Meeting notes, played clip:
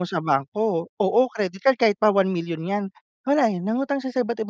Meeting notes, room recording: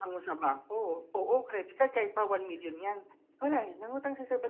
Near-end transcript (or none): none